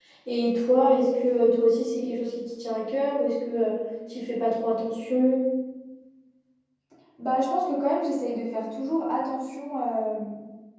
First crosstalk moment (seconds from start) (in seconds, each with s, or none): none